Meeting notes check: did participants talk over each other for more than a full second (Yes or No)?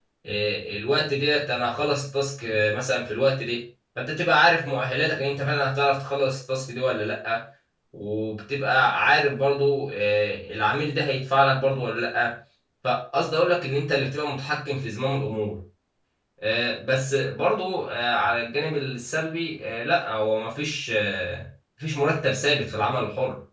No